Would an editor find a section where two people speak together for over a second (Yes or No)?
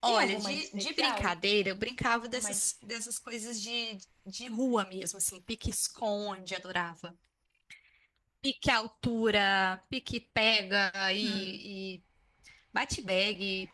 Yes